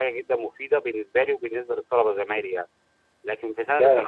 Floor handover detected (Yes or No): Yes